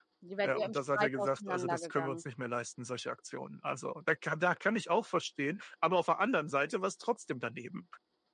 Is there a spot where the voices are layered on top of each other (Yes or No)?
Yes